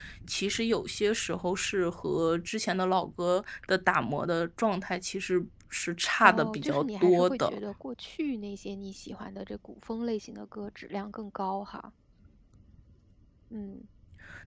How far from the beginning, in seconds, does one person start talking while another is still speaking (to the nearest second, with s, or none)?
6 s